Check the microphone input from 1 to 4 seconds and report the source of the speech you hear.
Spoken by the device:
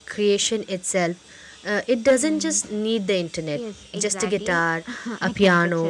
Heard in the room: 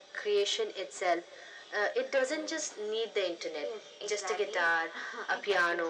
echo only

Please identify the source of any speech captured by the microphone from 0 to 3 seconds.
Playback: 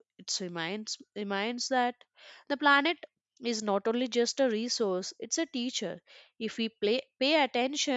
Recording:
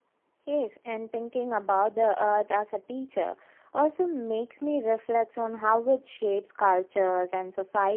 user only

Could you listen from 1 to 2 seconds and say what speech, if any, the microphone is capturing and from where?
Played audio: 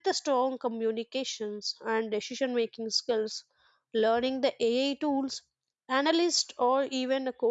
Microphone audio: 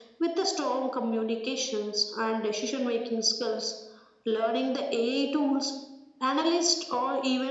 echo only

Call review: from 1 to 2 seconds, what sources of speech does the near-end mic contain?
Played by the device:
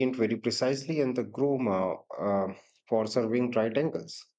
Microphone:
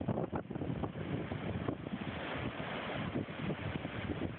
neither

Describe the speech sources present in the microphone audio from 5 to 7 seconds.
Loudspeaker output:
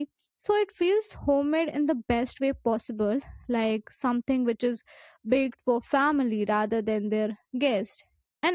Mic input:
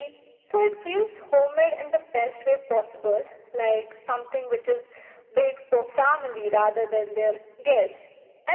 echo only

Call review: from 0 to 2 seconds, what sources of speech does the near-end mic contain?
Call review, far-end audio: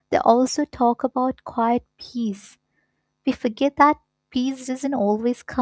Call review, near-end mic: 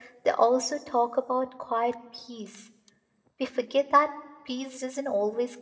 echo only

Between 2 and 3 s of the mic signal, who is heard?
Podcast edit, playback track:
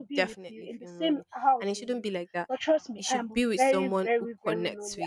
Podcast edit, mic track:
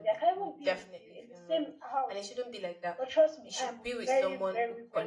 echo only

